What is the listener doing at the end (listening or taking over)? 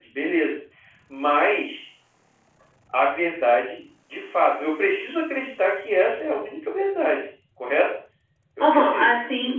taking over